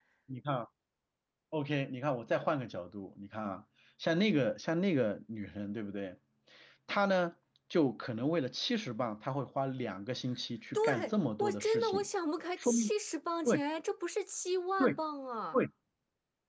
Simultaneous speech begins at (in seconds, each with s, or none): 10.7 s